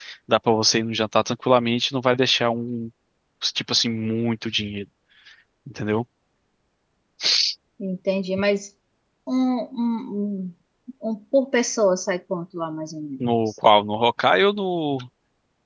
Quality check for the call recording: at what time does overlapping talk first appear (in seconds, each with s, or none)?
none